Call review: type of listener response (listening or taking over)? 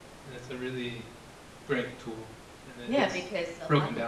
taking over